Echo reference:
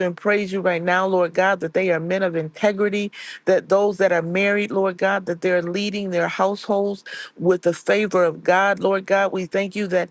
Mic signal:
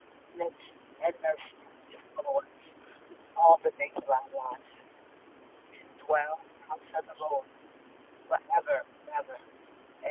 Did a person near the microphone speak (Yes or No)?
Yes